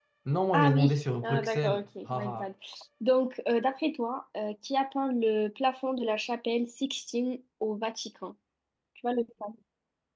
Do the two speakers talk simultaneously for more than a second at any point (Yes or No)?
Yes